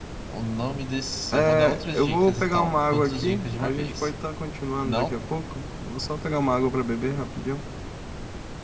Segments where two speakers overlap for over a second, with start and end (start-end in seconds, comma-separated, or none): 1.3-4.1